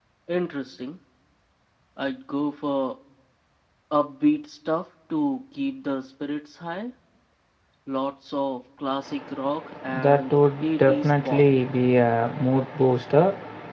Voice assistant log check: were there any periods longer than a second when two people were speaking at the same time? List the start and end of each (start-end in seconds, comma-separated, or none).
10.0-11.4